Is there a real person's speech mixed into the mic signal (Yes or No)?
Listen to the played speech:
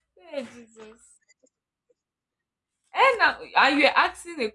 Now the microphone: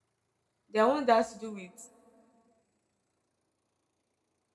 Yes